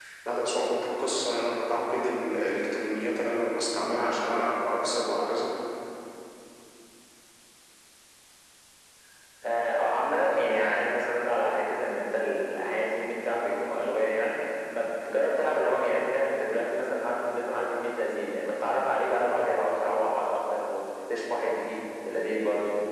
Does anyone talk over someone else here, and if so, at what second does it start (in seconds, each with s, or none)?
none